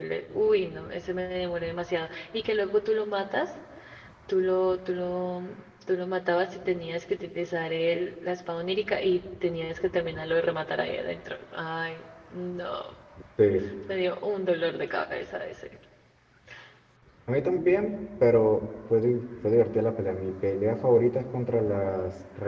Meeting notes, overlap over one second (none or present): none